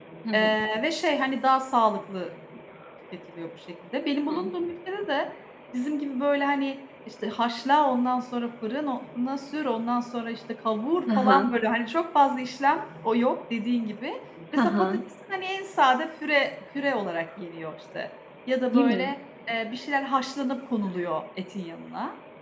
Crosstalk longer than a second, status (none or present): none